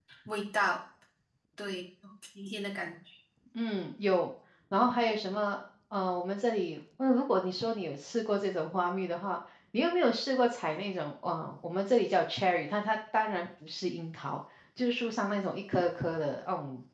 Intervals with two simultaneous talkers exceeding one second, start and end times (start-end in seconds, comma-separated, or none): none